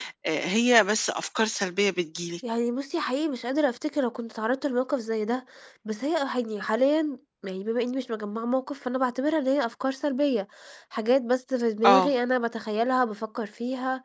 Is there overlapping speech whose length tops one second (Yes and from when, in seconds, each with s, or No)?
No